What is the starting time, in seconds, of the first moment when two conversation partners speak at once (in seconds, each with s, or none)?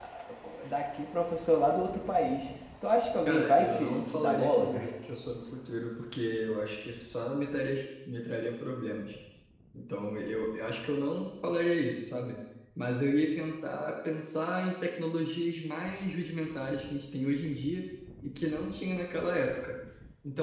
3.2 s